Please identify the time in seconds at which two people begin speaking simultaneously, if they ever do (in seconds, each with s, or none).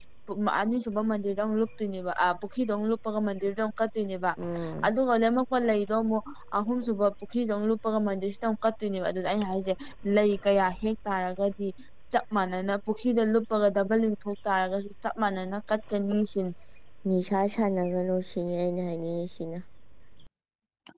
none